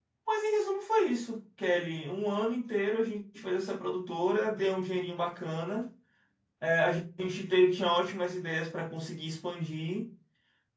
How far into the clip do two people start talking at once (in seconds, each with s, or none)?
none